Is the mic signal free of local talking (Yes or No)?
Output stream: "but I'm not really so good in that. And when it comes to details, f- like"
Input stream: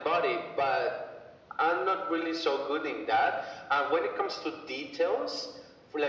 Yes